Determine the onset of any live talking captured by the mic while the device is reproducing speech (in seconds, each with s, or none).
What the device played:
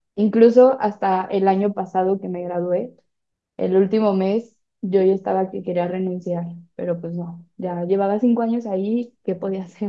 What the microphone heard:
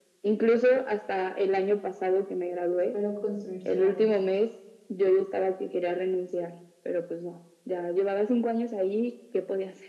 2.7 s